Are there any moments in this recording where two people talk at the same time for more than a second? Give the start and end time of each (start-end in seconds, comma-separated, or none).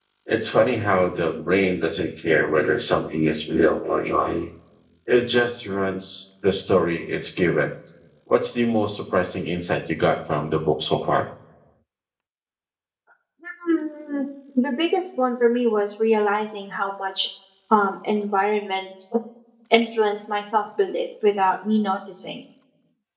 none